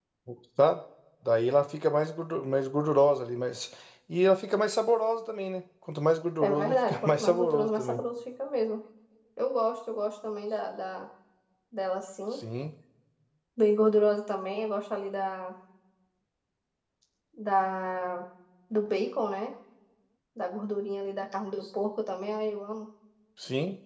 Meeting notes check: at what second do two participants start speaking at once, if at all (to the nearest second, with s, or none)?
6 s